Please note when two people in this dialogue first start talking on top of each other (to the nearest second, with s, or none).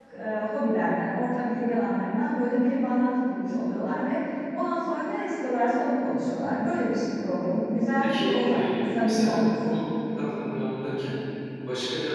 8 s